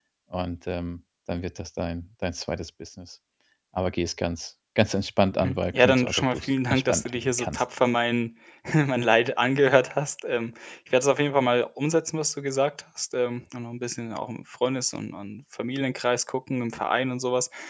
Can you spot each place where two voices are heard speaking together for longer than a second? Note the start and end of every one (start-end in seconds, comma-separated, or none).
5.4-7.6